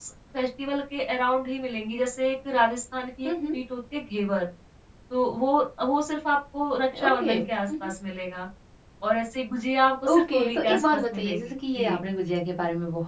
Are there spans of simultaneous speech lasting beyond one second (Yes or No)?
Yes